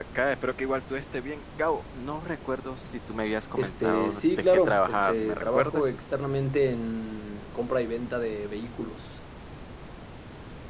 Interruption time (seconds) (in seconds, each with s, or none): 3.6 s